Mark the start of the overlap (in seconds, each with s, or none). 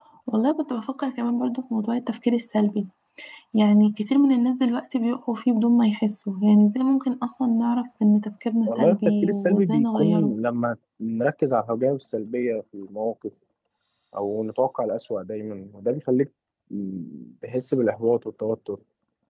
8.6 s